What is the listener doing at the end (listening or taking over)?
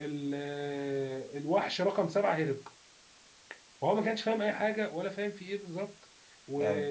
listening